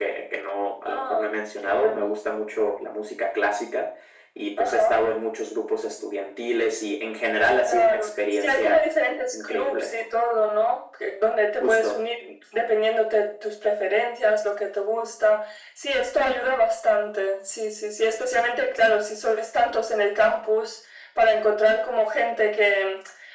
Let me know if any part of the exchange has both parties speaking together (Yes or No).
Yes